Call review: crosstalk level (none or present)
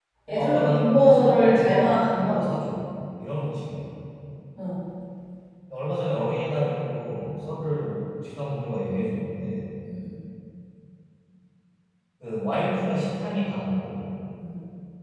present